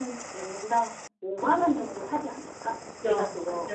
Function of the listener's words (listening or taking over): taking over